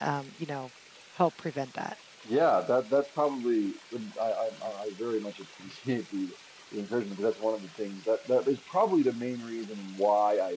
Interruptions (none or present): none